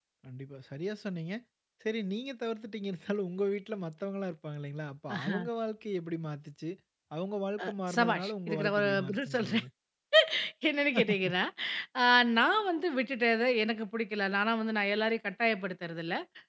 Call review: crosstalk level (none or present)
present